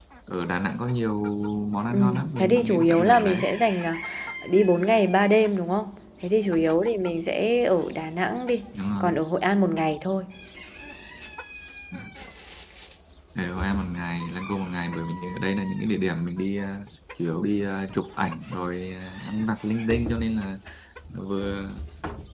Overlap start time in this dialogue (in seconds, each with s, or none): 1.9 s